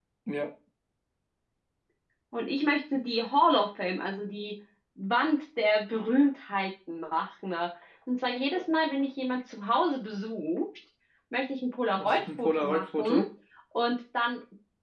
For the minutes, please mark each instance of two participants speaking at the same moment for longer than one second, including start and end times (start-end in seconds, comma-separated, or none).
12.0-13.2